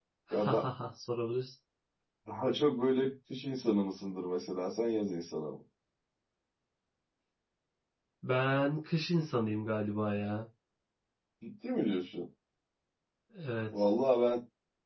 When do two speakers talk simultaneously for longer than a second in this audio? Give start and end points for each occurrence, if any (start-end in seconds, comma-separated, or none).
none